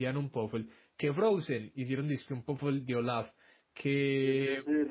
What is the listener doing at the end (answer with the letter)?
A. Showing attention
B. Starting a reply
B